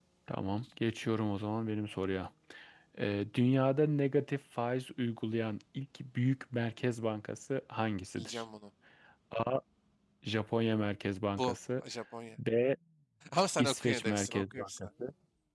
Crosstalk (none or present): present